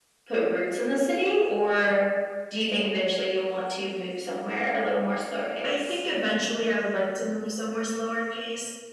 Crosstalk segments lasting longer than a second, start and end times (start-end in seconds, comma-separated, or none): none